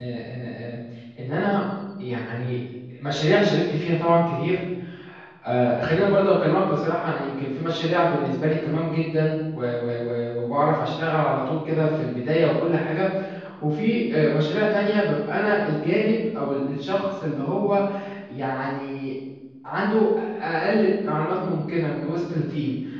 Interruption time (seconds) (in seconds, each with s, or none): none